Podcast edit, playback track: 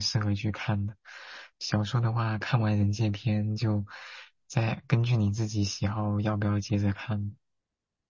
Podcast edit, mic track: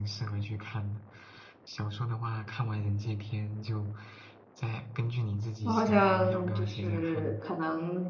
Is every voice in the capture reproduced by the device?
No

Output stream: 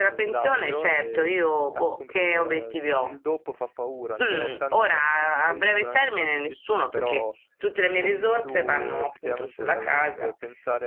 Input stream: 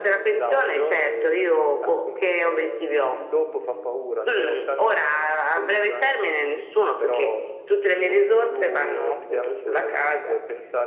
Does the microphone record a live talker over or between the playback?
No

